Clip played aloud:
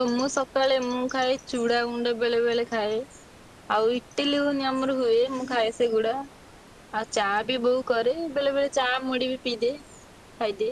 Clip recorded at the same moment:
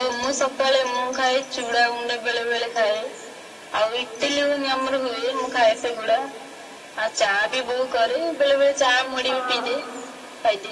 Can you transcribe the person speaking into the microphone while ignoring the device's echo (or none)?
ହଁ